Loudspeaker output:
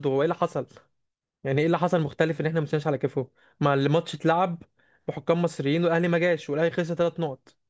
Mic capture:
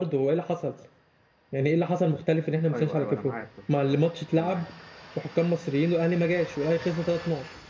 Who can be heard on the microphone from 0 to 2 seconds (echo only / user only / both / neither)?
echo only